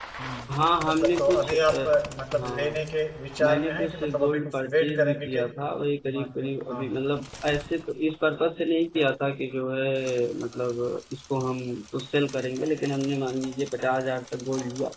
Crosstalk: present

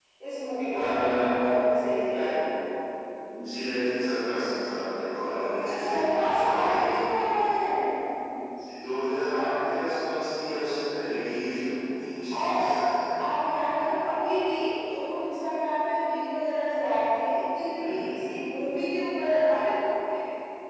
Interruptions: present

